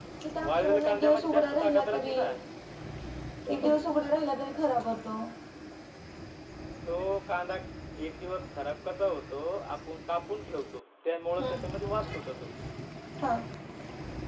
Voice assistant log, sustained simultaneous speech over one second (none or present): present